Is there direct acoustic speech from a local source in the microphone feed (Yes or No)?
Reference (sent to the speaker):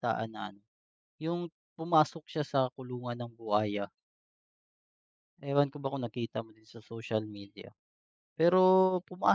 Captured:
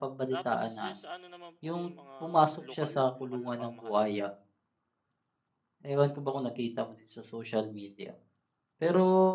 Yes